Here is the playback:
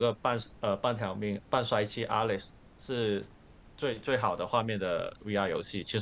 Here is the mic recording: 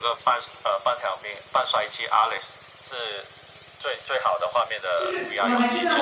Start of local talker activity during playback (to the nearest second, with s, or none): 5 s